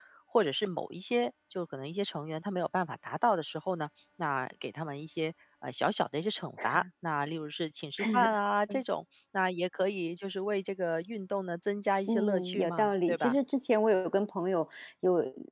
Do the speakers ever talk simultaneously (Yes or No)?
Yes